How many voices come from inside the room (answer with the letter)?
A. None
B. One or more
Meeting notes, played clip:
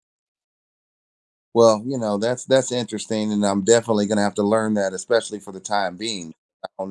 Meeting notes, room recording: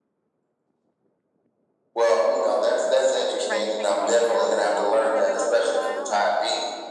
B